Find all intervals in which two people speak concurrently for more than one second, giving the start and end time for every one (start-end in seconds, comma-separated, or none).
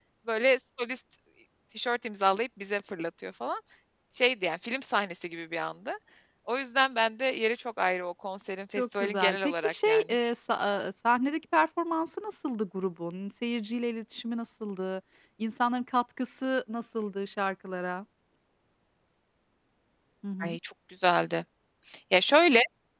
8.8-10.0